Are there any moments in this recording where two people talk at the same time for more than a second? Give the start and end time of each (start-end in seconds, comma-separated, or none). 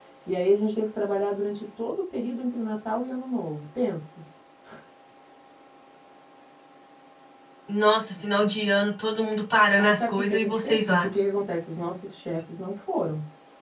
9.8-11.1